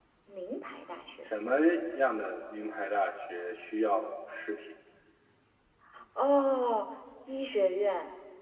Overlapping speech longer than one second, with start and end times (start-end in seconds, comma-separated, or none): none